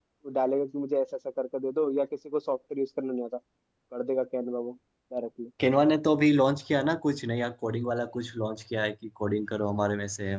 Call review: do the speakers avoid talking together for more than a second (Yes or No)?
Yes